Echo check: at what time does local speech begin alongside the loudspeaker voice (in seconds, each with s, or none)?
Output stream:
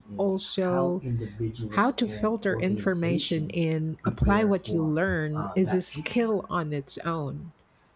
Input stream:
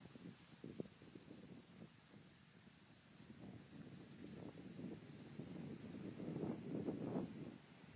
none